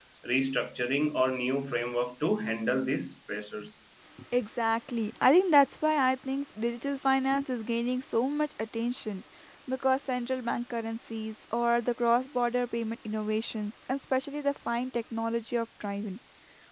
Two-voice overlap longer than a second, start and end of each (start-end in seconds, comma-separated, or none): none